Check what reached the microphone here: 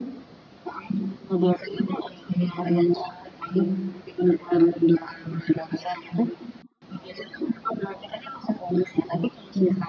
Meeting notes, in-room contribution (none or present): none